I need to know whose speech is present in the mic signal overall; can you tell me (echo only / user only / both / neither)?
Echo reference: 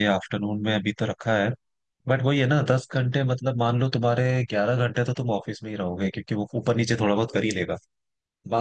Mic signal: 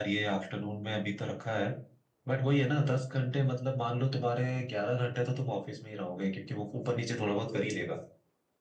echo only